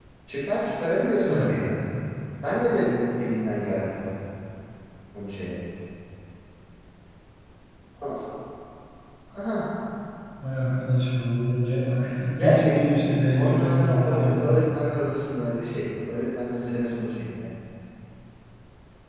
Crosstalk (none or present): present